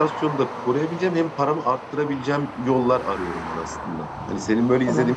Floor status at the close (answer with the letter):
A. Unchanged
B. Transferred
B